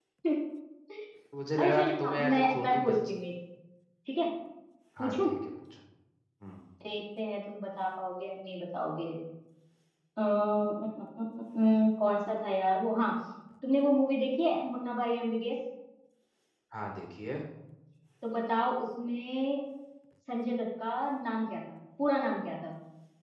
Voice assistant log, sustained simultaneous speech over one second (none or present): present